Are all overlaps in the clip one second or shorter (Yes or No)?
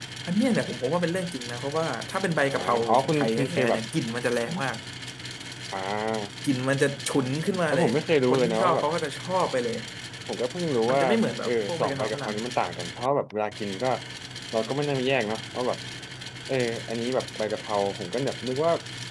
No